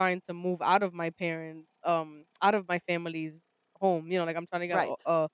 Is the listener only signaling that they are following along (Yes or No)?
Yes